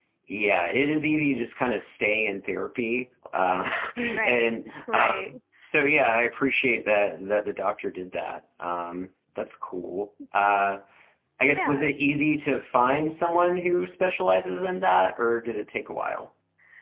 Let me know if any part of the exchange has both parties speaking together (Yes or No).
Yes